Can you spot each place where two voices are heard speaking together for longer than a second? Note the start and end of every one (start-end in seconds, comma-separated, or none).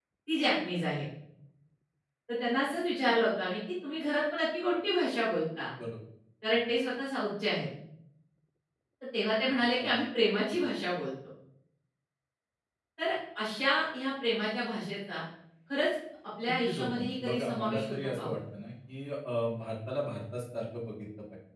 16.7-18.3